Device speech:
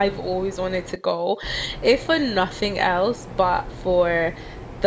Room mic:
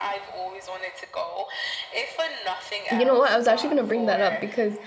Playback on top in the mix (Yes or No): No